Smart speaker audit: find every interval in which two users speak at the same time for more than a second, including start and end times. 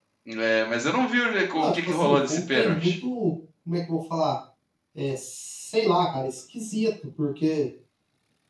1.5-2.9

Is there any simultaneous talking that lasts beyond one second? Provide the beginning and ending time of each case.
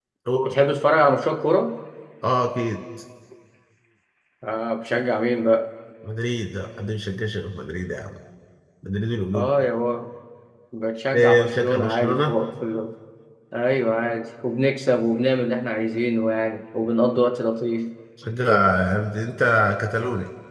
11.1-12.4

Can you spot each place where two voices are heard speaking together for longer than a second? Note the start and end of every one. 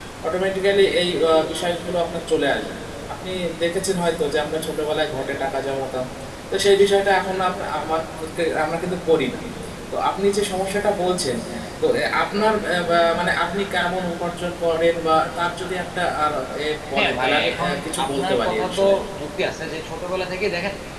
17.0-18.8

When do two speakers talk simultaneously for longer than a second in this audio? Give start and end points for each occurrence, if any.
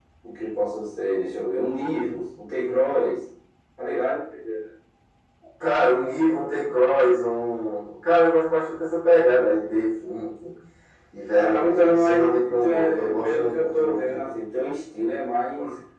11.3-14.2

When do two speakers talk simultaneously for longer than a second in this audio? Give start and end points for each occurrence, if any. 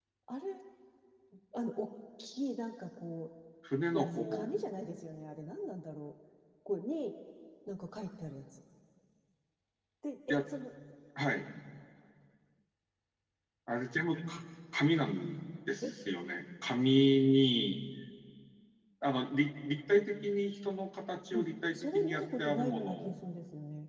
21.4-23.1

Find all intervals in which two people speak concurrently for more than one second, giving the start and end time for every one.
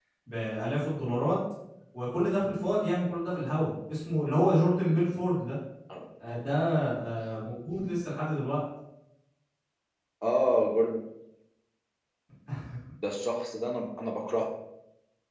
none

